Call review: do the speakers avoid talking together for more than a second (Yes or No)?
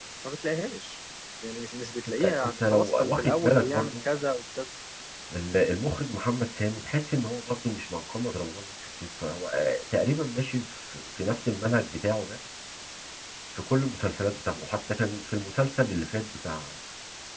No